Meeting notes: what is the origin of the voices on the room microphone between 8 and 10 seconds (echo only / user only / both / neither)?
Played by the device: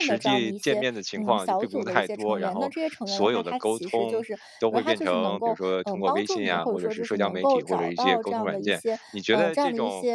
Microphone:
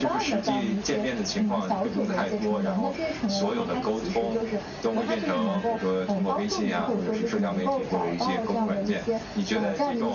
echo only